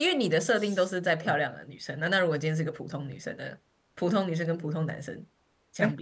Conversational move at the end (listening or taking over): taking over